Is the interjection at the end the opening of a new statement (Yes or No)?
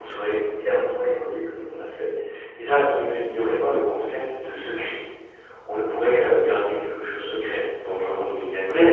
Yes